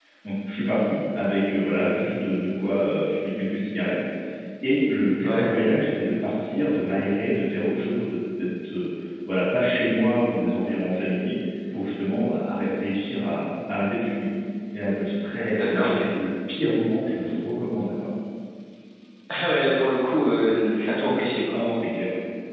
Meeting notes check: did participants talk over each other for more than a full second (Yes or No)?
No